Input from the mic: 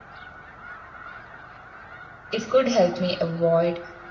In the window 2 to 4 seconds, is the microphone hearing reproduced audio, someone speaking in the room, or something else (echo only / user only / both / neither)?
user only